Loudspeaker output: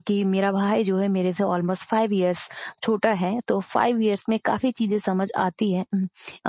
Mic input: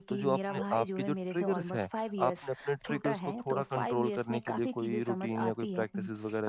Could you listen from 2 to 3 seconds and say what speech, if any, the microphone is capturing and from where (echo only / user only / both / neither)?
both